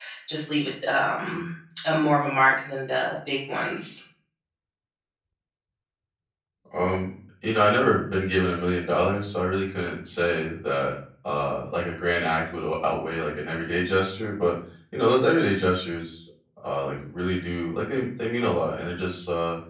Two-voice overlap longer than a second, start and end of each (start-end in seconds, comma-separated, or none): none